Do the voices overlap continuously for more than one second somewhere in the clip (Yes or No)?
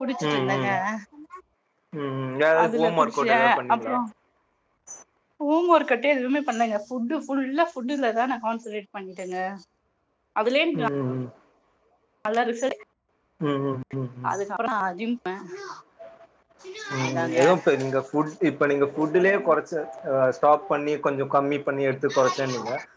Yes